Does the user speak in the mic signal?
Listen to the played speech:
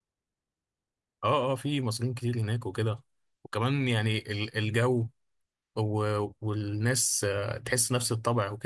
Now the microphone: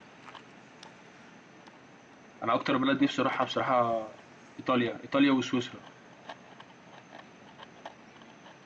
Yes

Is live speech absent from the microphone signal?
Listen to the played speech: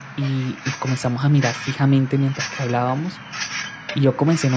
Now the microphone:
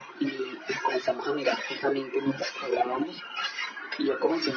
Yes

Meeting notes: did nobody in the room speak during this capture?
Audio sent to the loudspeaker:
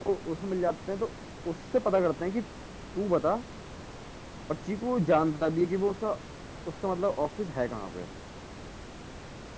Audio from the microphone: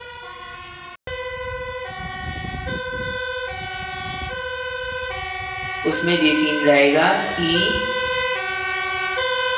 No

